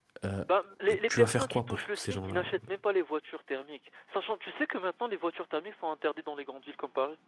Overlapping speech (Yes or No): Yes